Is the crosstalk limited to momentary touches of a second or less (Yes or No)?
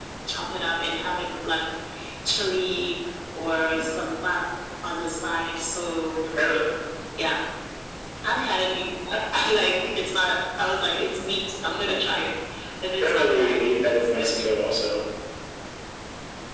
No